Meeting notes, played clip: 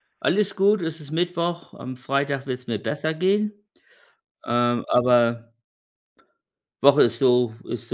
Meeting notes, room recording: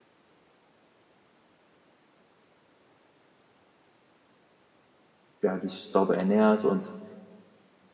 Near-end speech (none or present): present